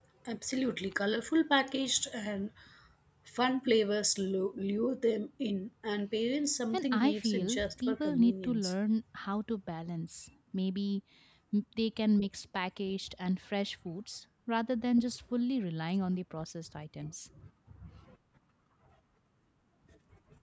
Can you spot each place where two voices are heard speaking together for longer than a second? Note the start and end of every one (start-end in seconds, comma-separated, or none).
6.7-8.7